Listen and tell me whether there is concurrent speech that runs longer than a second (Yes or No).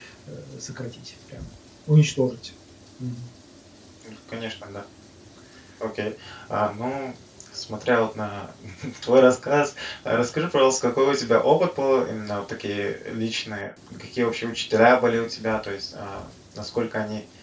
No